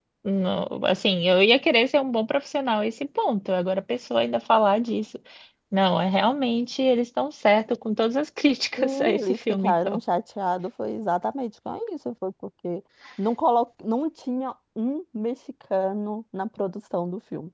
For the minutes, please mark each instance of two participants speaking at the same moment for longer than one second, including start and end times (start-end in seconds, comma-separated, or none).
8.8-10.0